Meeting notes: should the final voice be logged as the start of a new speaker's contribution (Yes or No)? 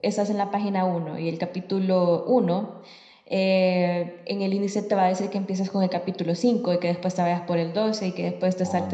No